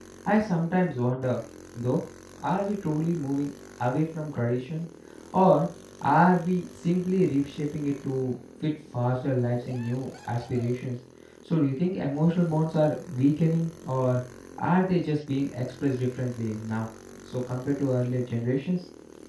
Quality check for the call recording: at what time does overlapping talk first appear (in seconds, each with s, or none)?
none